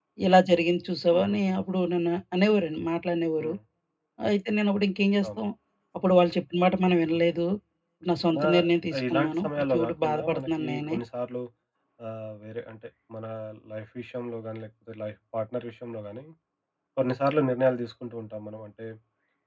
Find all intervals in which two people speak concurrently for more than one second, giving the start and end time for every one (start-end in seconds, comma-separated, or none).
9.1-11.0